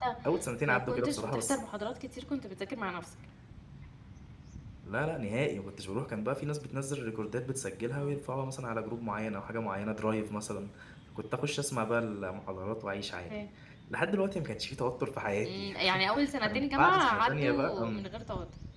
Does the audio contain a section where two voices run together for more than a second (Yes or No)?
Yes